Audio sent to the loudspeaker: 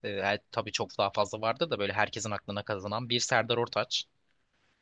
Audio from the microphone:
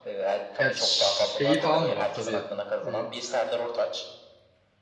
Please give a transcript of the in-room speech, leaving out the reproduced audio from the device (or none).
Ya şeyi falan da var tabii. Ee,